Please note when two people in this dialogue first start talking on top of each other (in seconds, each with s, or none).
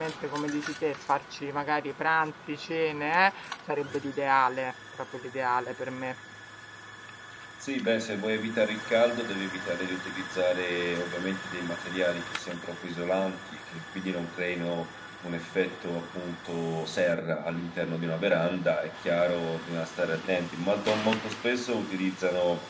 none